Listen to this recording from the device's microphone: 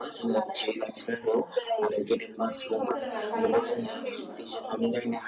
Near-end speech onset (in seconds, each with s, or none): 2.9 s